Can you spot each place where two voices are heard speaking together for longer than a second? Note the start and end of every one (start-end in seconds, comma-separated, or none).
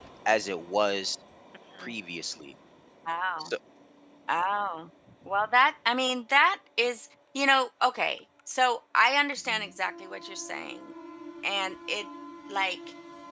none